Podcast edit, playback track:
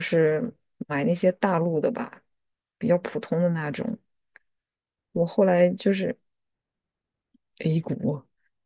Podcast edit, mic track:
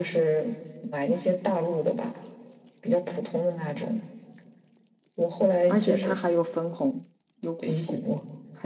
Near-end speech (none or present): present